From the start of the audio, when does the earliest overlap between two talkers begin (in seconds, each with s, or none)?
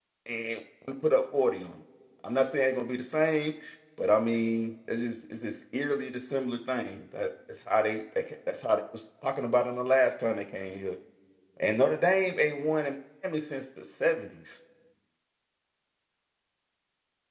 none